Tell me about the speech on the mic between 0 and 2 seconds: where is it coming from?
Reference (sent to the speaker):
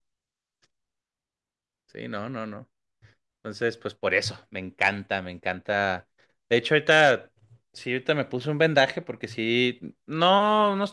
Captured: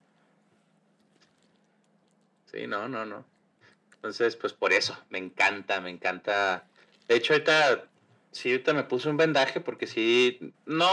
neither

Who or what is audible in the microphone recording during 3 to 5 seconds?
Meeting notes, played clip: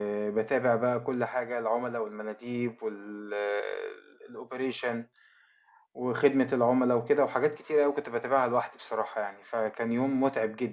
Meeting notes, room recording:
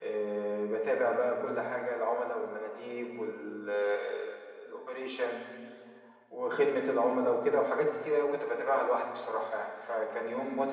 echo only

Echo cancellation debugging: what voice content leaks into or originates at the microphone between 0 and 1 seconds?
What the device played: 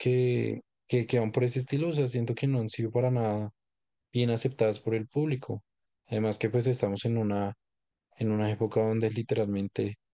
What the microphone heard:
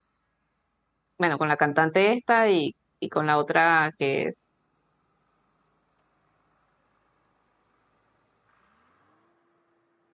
neither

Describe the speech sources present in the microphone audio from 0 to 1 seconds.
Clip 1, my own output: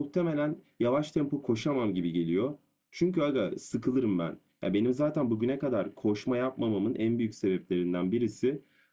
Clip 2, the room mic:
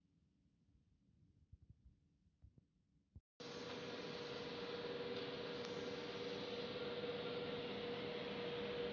neither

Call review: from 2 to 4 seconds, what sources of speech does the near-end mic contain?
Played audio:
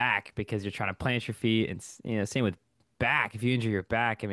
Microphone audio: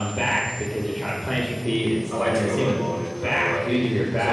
both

